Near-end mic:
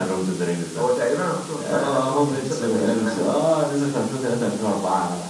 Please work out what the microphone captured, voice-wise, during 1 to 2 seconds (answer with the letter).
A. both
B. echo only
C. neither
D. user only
B